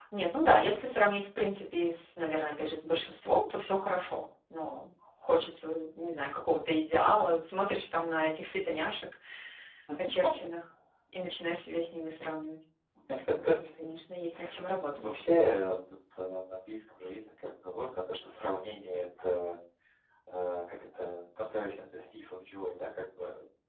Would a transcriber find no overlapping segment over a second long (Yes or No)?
Yes